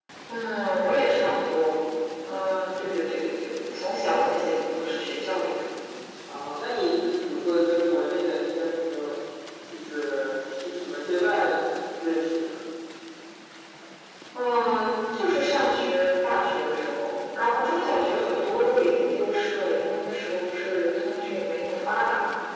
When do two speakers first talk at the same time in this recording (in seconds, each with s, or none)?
none